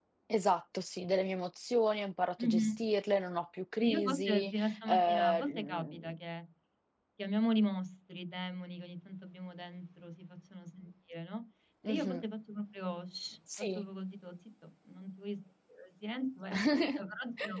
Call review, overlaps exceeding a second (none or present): present